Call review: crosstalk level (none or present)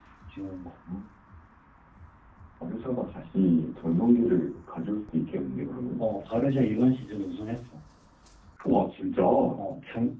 none